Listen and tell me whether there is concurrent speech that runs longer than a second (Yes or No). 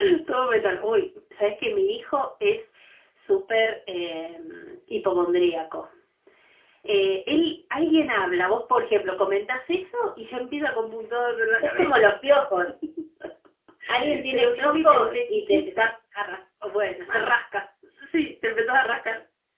Yes